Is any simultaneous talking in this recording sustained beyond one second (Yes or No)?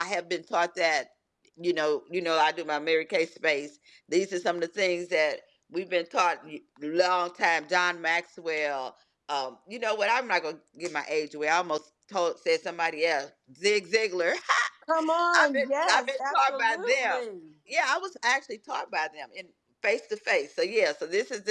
Yes